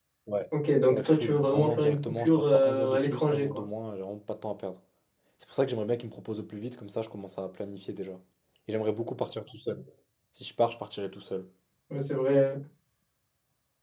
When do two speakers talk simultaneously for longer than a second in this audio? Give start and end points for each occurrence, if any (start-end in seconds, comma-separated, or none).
0.9-3.6